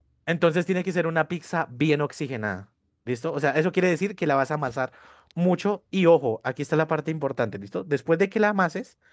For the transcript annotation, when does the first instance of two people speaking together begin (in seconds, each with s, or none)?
none